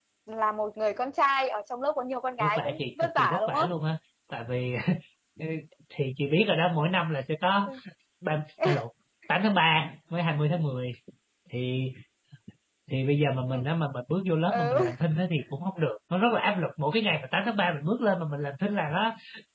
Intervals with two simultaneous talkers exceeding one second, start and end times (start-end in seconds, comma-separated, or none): 2.4-3.7